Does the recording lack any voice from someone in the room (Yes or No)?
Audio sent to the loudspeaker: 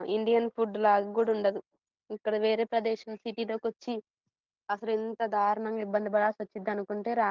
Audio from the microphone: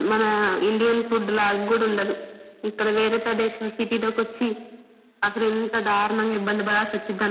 Yes